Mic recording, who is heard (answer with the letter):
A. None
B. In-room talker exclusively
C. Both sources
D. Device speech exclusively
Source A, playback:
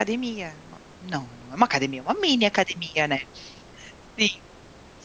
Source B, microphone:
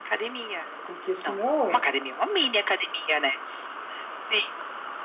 C